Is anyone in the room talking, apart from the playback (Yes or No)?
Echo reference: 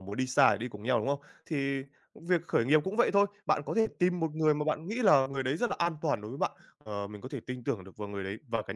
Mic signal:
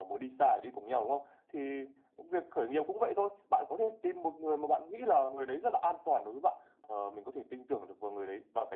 No